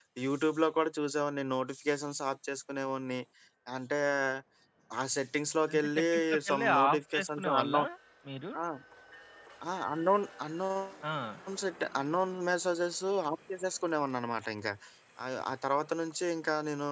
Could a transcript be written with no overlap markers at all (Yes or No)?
No